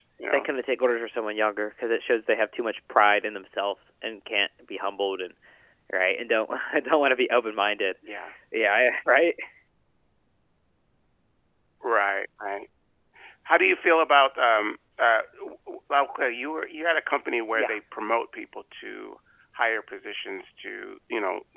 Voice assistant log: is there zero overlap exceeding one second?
Yes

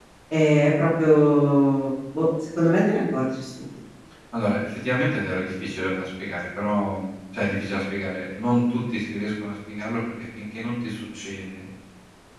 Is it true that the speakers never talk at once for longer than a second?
Yes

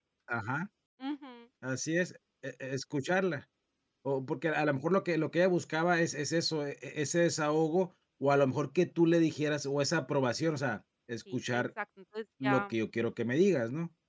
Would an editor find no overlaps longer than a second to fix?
Yes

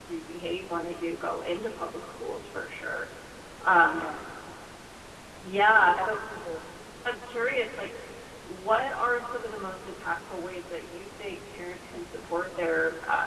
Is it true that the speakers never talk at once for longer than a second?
Yes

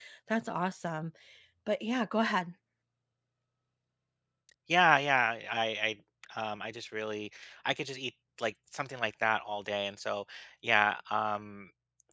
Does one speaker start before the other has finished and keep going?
No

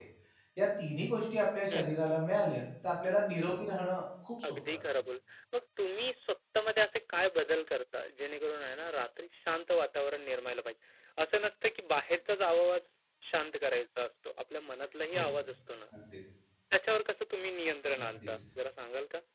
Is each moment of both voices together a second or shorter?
Yes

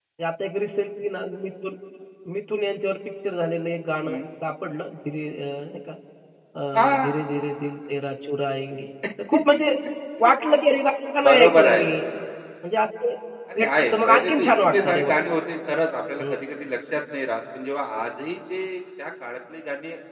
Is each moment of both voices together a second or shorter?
No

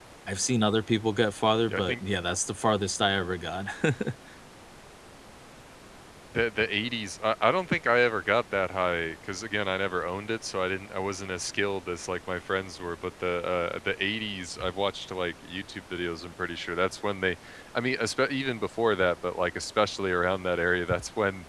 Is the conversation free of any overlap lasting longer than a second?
Yes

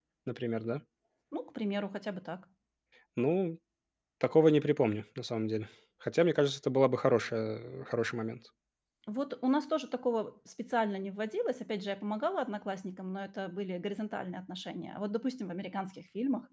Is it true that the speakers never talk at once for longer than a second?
Yes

